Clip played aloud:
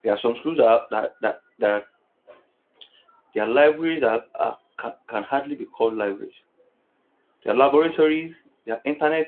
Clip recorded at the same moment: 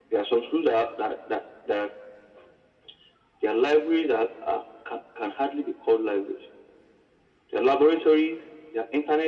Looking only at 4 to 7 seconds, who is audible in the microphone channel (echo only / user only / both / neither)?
echo only